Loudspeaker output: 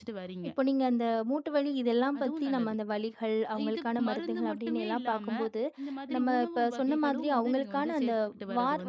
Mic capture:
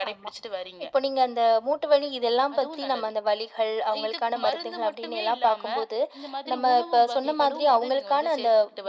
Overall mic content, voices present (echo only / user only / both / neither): echo only